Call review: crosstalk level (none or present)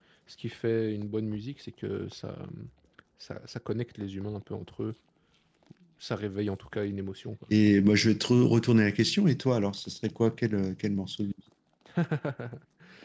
none